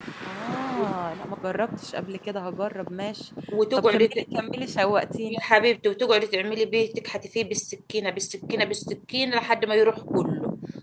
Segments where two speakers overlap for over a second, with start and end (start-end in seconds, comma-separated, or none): none